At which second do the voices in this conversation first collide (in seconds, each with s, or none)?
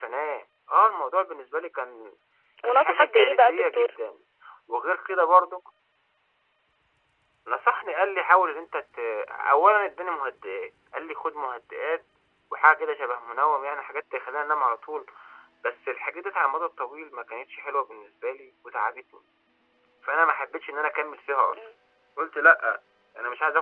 2.6 s